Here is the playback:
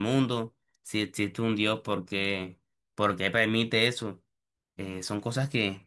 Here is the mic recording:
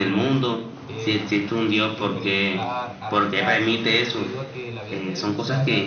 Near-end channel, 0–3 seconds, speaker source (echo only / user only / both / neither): both